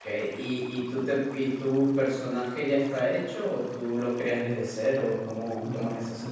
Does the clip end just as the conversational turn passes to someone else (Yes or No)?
Yes